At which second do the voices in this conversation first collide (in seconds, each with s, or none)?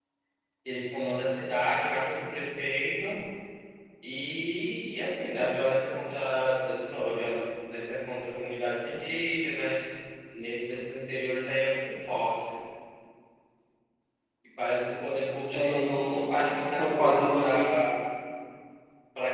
15.5 s